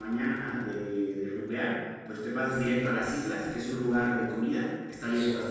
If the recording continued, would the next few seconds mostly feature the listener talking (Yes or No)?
No